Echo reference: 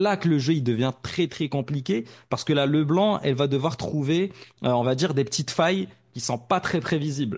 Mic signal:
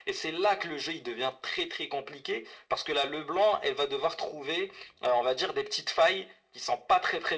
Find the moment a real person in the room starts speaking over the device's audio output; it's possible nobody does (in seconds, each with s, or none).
none